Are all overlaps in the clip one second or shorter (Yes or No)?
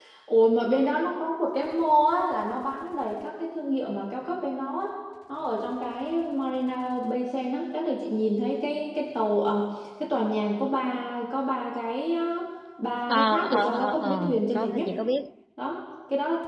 No